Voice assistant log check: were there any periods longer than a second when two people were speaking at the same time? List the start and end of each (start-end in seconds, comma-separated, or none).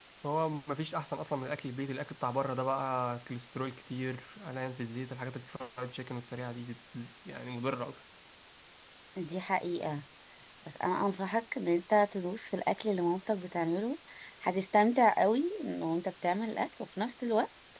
none